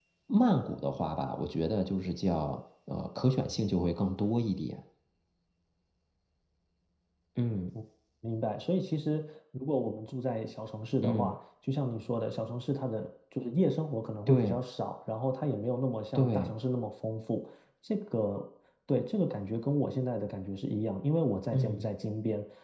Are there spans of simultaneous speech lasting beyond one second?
No

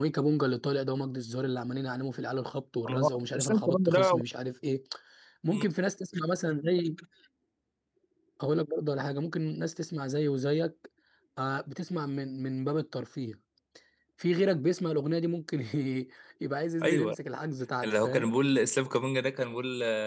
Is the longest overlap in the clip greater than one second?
Yes, from 2.9 s

